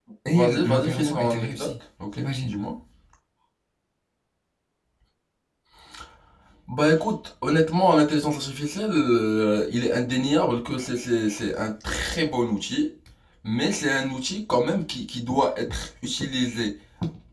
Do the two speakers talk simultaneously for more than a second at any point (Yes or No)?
Yes